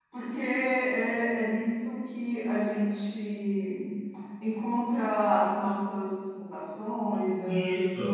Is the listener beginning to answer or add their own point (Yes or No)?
Yes